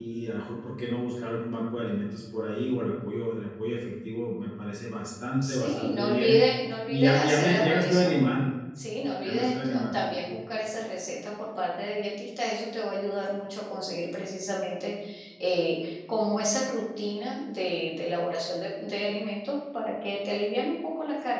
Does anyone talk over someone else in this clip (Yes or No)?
Yes